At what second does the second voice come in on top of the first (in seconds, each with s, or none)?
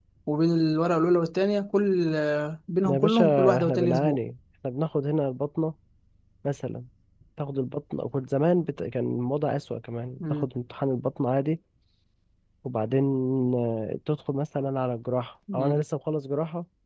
2.8 s